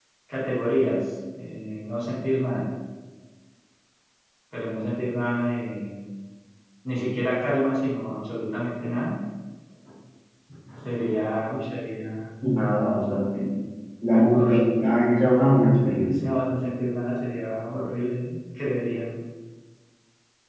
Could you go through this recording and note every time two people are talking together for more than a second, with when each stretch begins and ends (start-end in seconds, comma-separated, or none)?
none